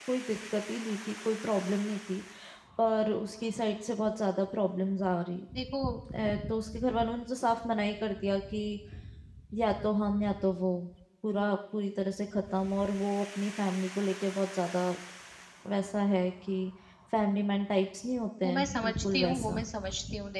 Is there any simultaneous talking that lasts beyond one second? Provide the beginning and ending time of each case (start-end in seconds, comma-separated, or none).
18.4-19.6